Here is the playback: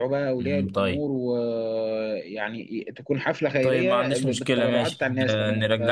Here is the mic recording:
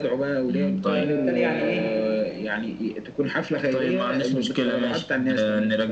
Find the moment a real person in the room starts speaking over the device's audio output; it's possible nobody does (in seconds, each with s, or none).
0.8 s